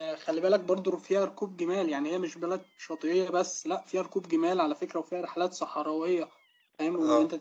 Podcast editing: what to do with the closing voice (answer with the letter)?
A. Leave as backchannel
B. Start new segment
B